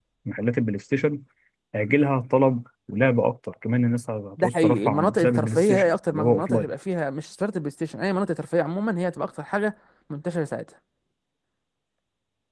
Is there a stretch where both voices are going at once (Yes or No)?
Yes